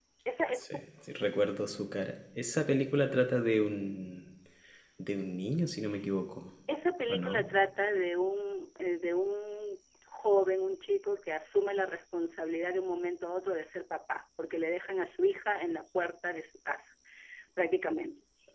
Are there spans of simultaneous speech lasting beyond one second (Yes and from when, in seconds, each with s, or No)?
No